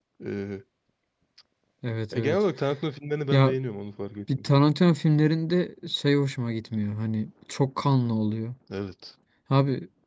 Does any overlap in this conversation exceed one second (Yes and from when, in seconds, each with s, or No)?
No